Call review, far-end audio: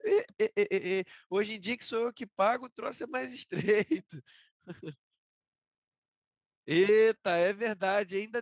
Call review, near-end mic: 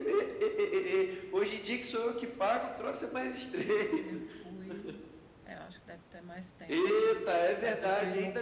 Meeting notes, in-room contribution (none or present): present